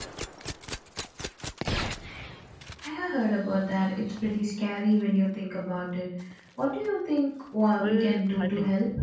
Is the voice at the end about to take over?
Yes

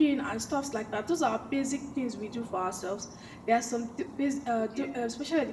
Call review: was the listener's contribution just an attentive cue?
Yes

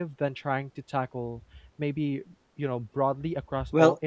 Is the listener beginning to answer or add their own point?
Yes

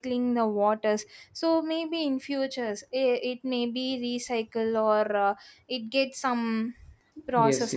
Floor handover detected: Yes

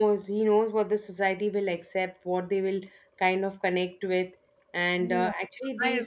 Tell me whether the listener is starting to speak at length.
Yes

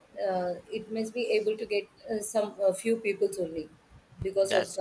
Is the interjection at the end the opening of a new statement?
No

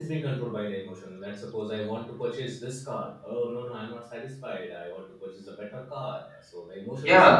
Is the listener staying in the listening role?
No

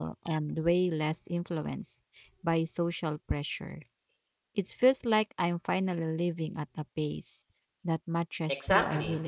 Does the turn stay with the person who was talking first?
No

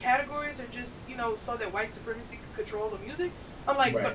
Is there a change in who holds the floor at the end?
No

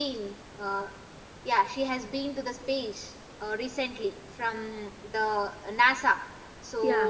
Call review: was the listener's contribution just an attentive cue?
Yes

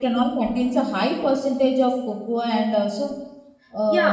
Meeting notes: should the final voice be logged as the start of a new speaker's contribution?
Yes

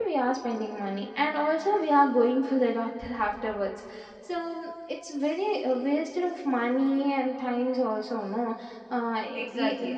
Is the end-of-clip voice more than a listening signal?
Yes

